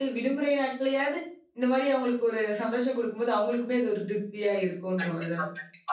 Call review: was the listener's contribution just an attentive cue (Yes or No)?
No